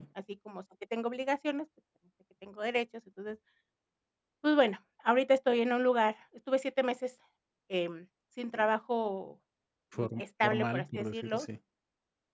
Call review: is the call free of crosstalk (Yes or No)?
No